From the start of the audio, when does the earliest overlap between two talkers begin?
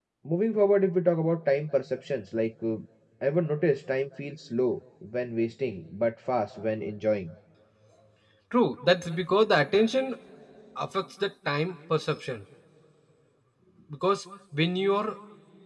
none

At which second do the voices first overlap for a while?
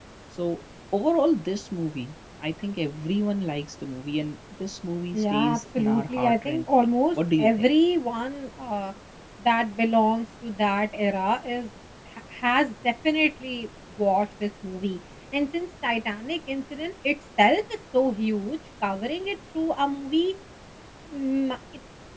5.1 s

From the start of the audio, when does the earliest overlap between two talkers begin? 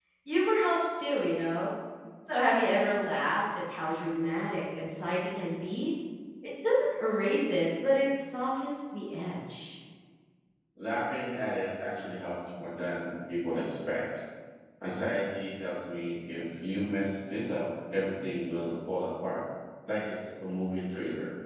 none

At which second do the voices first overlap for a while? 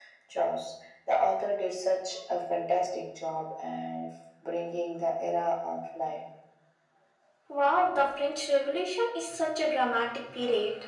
none

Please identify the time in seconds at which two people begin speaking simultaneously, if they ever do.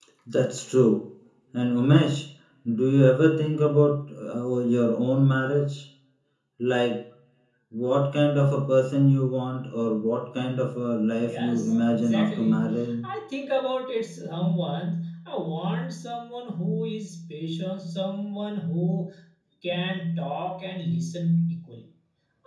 11.2 s

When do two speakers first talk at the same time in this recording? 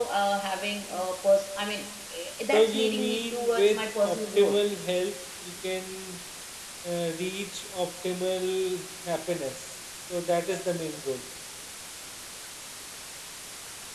2.5 s

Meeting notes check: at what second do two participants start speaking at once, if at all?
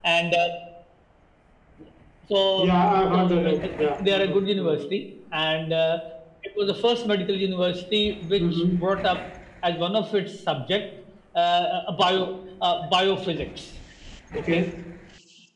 2.6 s

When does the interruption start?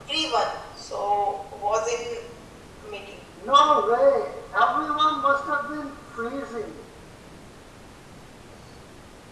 none

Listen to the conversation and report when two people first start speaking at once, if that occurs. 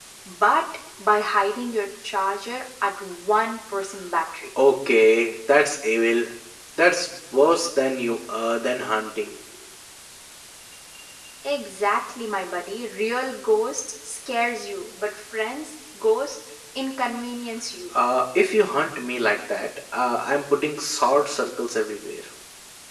none

